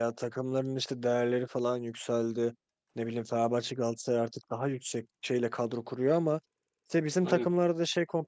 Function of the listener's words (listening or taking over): listening